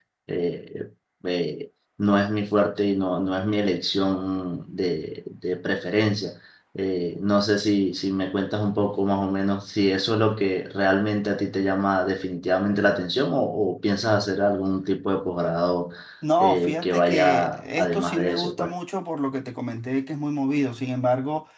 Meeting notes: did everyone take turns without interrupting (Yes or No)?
No